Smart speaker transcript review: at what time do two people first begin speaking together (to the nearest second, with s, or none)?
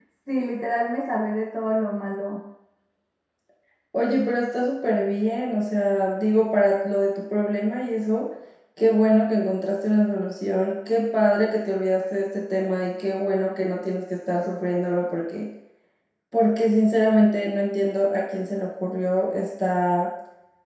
none